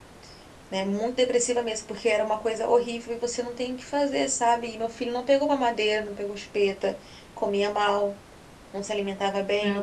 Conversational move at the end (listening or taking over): listening